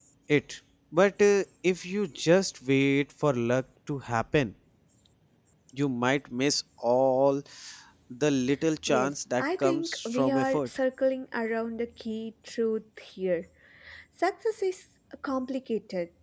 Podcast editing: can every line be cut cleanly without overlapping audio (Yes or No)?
No